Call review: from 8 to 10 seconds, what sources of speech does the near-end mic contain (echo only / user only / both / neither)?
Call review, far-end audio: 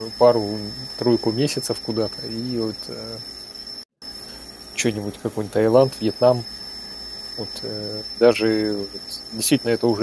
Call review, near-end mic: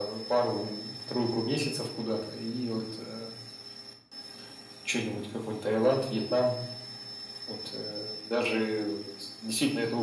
echo only